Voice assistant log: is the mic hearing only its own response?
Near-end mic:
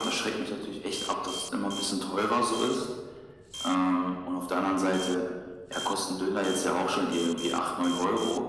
Yes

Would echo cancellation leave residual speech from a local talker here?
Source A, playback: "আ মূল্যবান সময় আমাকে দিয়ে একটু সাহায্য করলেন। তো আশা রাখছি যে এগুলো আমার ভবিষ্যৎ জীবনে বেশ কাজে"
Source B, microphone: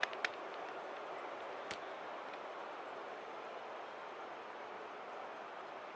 No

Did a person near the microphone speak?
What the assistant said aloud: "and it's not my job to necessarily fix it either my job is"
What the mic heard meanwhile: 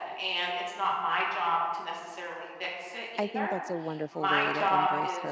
Yes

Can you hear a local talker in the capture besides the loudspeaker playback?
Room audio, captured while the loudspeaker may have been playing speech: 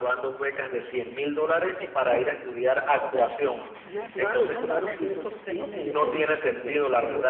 Yes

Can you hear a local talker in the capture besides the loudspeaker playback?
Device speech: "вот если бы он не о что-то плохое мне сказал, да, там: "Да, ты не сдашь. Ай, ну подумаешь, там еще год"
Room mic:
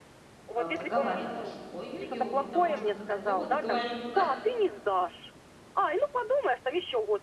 Yes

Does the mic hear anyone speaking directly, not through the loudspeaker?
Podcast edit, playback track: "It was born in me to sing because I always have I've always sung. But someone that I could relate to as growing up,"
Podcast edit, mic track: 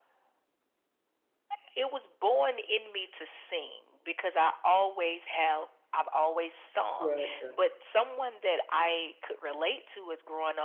Yes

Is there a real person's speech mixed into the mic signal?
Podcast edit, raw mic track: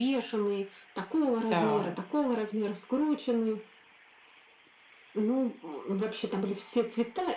Yes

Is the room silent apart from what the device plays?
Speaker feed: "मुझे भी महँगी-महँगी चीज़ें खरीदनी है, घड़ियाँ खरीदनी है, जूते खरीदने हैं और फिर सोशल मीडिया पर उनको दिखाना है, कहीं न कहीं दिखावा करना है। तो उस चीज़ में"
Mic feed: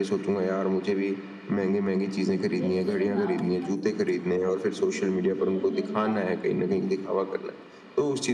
No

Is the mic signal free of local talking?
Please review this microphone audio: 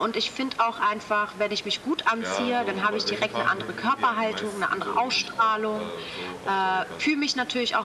No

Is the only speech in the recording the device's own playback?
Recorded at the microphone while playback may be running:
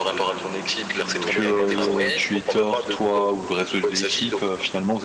No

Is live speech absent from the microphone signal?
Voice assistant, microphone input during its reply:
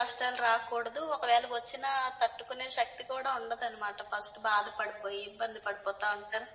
Yes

